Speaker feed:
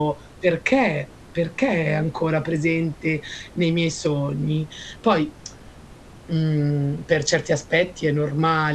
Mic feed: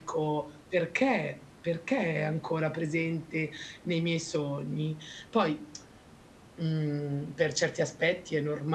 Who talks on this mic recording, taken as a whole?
echo only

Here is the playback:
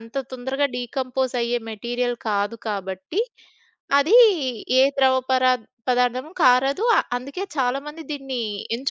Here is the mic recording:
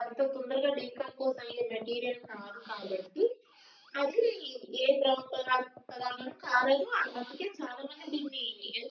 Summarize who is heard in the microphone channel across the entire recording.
echo only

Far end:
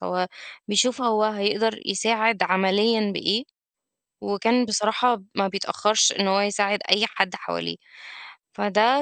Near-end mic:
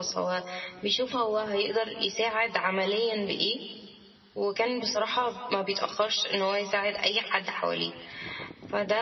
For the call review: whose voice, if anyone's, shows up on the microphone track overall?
echo only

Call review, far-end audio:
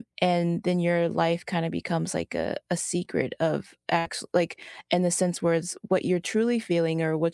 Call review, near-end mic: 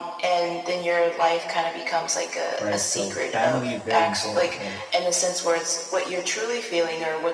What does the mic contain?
both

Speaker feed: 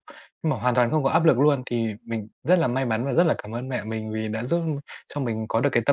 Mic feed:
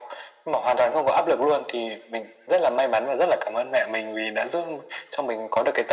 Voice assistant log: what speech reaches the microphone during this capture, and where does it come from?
echo only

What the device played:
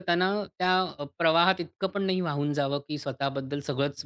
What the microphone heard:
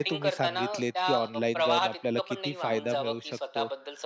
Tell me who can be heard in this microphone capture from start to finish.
both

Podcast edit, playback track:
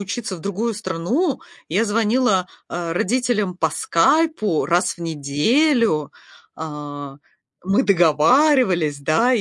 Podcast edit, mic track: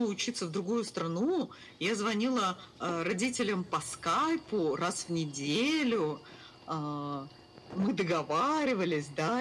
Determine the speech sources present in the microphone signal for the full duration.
echo only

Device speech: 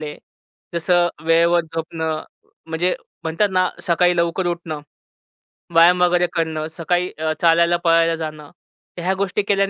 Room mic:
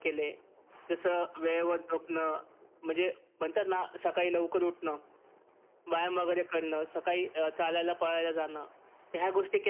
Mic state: echo only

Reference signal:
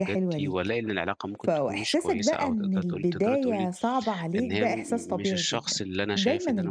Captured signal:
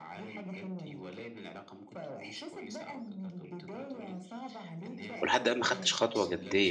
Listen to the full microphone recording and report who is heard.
both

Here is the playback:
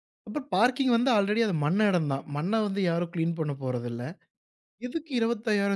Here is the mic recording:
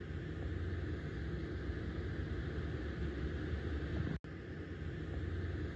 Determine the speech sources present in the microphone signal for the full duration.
neither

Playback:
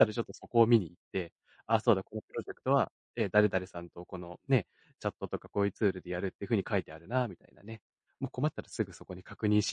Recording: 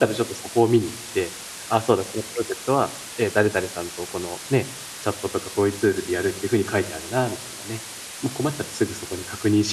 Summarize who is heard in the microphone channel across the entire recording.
echo only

